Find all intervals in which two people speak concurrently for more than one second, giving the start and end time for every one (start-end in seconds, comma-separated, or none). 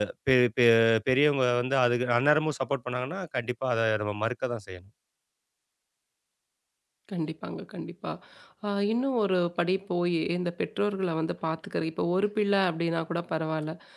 none